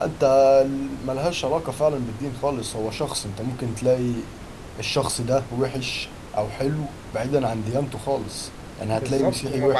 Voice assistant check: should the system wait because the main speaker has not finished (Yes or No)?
No